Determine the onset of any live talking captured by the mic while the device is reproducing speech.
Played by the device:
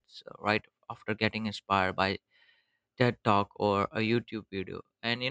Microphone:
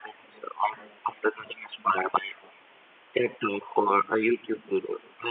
none

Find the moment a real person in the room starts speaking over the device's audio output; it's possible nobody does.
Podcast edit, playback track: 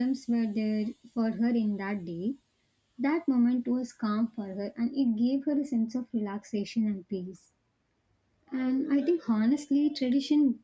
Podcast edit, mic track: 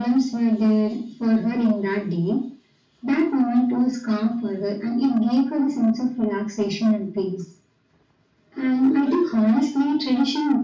none

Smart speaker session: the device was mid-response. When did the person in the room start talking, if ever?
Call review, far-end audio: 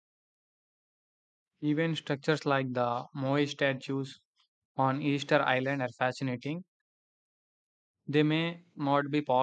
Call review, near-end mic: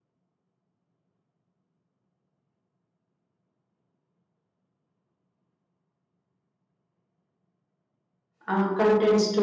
8.5 s

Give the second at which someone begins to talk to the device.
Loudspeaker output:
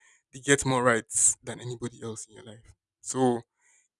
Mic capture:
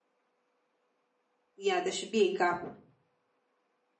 1.6 s

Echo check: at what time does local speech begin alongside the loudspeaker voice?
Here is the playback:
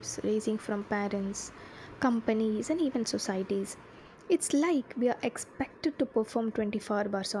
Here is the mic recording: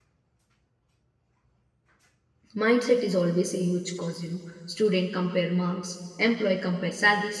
2.5 s

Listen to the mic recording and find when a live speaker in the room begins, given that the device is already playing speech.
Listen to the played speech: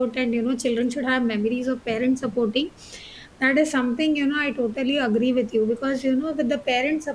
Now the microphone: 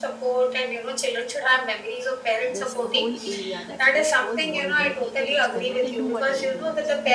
2.5 s

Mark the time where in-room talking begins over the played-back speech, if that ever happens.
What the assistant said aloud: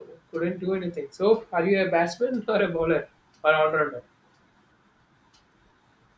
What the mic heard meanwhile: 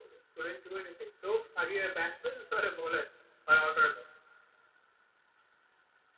none

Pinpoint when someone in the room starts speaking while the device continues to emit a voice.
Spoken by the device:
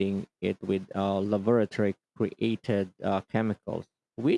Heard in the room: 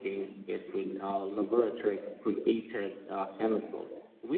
none

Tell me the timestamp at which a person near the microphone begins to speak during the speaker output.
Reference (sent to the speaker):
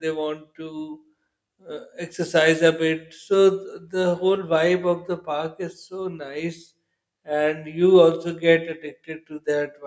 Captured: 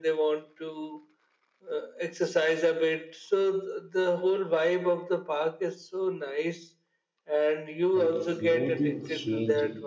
7.9 s

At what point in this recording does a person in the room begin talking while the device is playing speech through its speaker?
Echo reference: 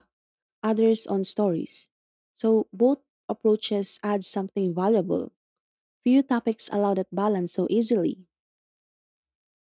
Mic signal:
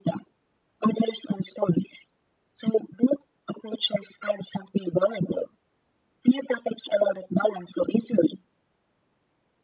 none

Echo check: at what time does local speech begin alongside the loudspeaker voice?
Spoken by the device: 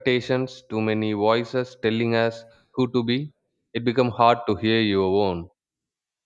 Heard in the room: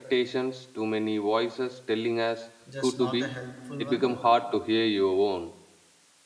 2.7 s

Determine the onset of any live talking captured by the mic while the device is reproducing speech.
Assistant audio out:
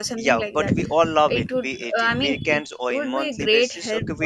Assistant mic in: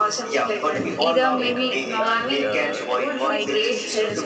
0.9 s

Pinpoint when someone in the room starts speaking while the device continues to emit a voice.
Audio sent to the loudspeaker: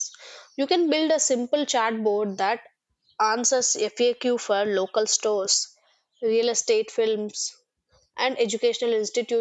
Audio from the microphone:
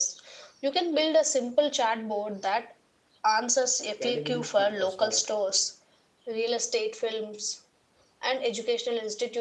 3.9 s

